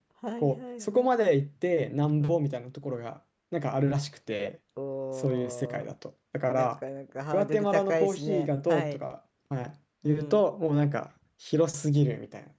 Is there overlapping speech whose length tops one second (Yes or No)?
Yes